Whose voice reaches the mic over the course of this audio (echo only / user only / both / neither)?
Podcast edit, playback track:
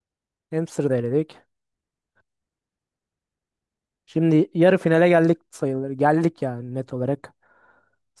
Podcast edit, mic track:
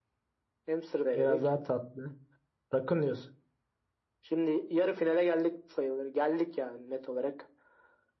both